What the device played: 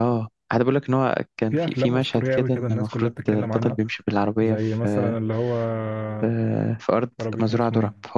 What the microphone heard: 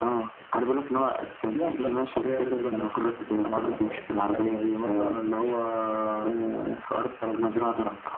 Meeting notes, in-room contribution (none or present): present